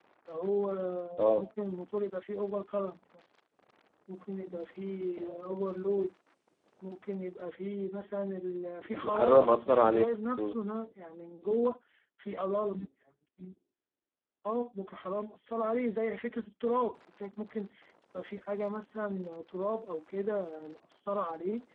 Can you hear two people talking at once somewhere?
Yes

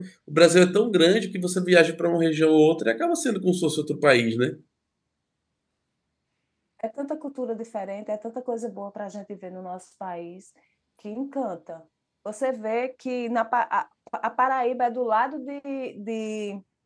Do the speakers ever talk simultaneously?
No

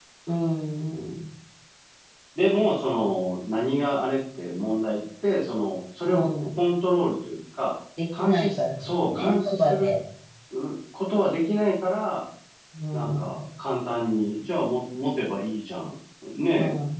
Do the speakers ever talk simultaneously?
Yes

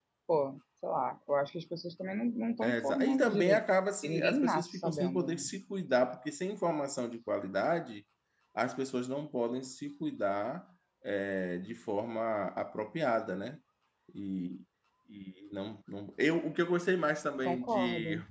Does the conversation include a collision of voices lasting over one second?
Yes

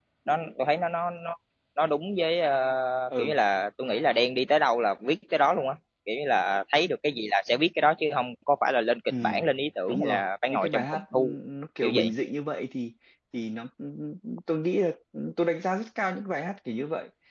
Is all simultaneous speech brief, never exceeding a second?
No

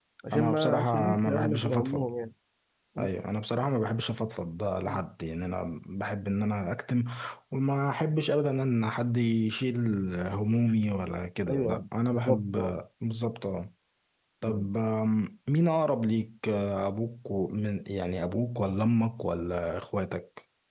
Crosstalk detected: Yes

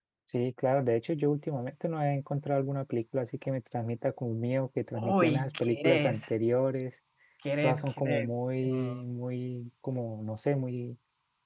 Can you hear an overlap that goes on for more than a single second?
Yes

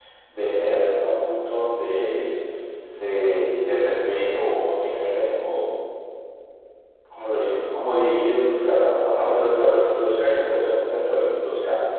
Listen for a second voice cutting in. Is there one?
No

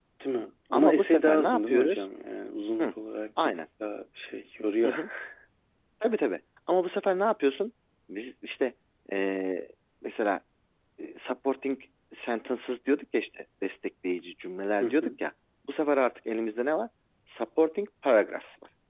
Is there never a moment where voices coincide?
No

